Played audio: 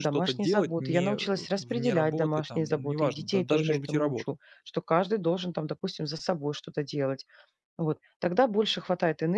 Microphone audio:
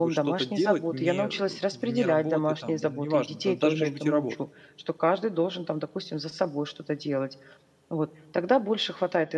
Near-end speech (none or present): none